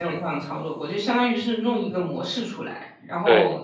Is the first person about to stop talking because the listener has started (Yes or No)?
No